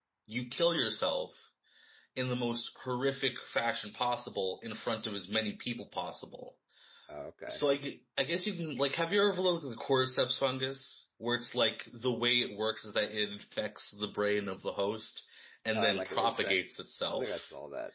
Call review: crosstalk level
present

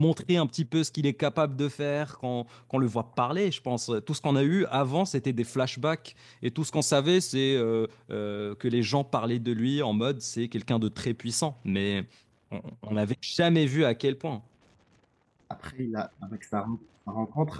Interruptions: none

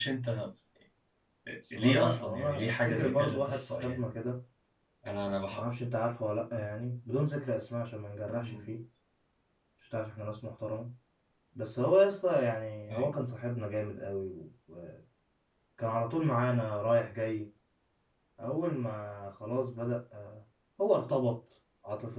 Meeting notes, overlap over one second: present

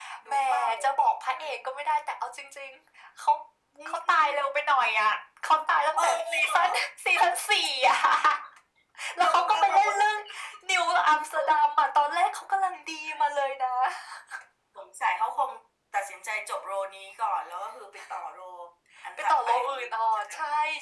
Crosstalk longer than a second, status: present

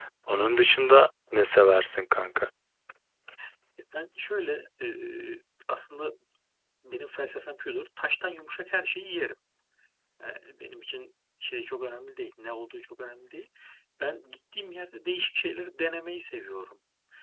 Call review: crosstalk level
none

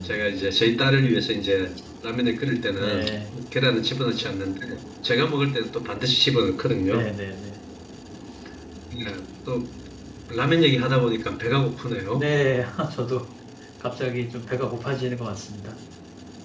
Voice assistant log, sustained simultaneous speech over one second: none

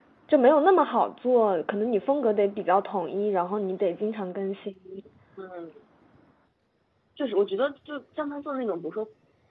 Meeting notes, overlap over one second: none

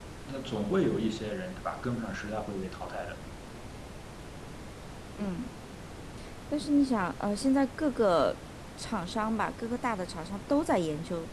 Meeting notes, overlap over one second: none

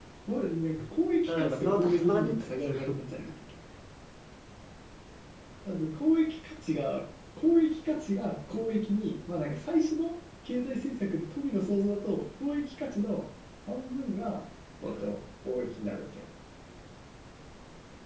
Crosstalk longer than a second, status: present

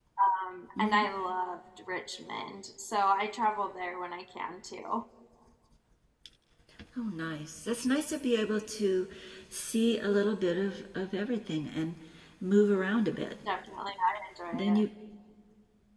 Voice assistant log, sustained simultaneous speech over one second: none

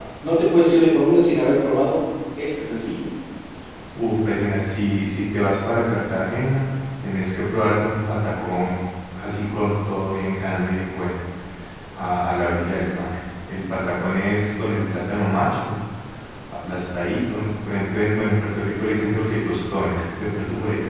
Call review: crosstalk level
none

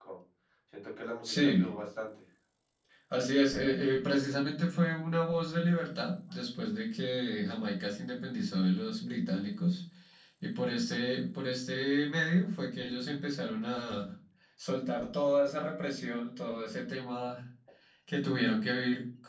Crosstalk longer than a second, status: none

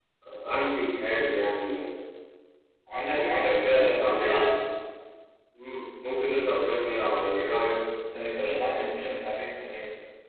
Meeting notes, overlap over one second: present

